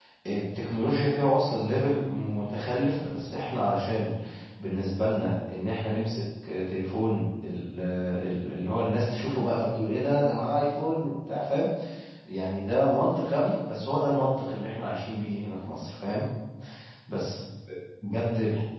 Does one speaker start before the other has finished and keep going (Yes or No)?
No